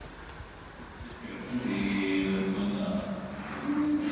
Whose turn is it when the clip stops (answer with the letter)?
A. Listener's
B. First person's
A